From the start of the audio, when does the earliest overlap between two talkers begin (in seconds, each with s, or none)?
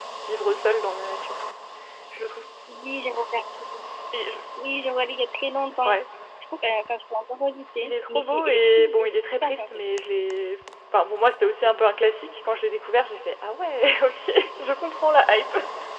7.8 s